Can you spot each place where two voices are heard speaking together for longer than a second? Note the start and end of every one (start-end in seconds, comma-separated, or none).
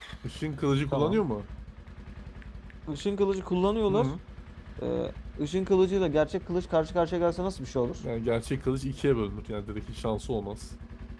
none